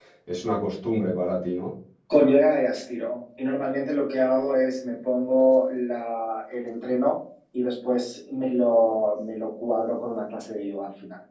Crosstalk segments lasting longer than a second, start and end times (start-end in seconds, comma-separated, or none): none